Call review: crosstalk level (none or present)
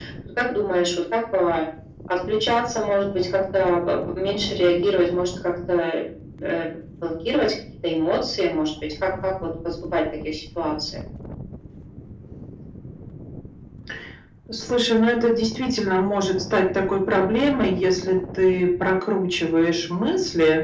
none